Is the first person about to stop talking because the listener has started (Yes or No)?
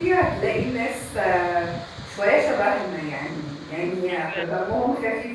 No